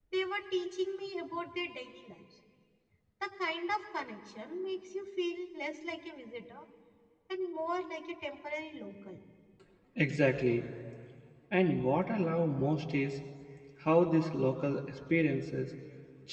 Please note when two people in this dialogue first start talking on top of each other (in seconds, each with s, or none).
none